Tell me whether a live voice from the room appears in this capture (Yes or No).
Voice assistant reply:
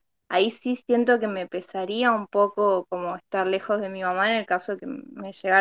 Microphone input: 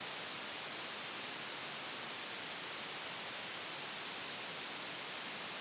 No